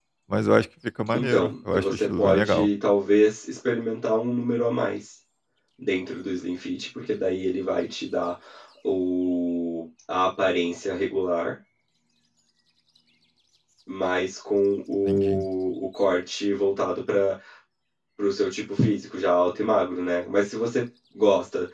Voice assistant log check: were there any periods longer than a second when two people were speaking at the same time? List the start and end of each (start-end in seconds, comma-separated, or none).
1.1-2.7